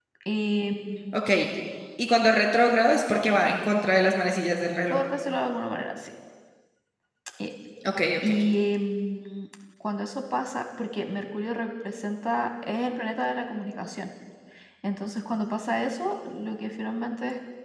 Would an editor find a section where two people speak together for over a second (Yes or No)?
No